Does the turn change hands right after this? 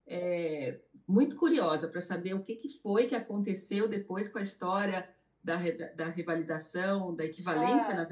No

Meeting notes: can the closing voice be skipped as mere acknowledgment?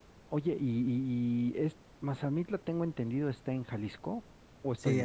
No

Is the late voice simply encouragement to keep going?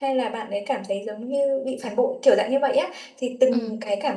Yes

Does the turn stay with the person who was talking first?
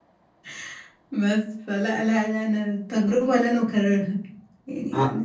No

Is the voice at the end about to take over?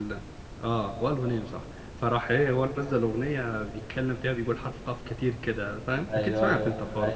Yes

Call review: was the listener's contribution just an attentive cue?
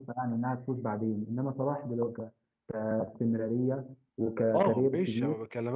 No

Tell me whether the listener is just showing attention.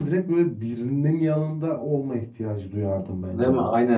No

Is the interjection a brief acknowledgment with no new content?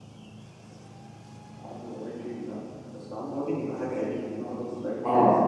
No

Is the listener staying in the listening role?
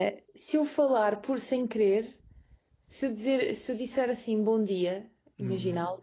Yes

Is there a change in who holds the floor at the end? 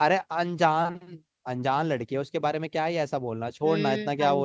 Yes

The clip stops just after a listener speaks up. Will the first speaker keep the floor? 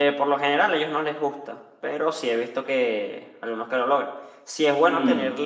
Yes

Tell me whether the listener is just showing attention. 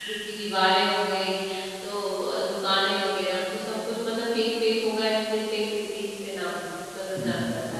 No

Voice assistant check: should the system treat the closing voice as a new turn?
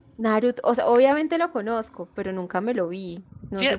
Yes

